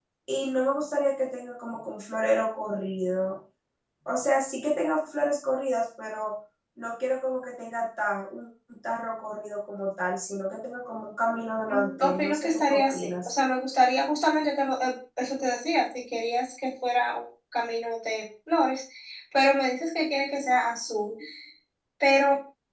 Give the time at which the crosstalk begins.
12 s

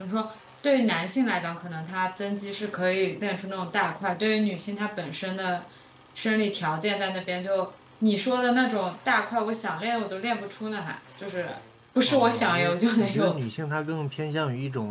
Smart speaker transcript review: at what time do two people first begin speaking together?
12 s

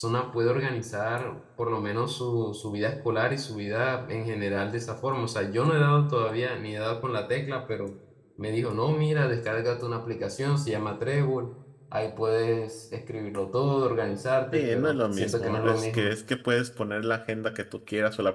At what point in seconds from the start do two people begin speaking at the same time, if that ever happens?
15 s

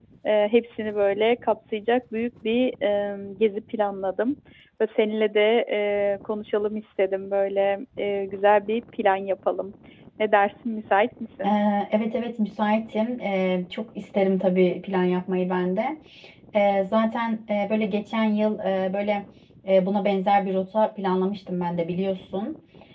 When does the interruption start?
none

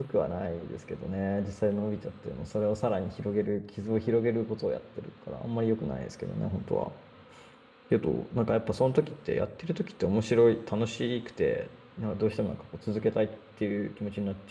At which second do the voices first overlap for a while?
none

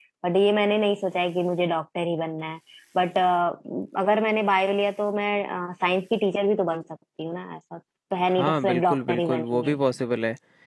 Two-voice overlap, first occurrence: 8 s

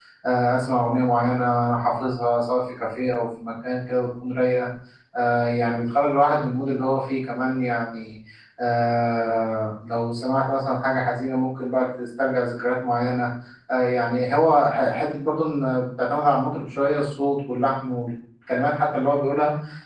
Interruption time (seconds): none

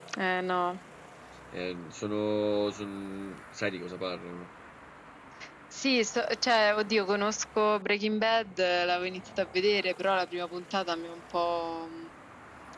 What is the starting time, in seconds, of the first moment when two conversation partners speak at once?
none

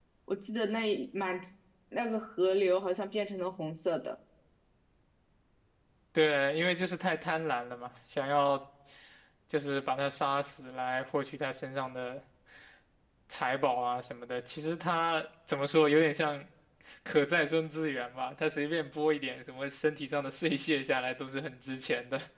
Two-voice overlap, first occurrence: none

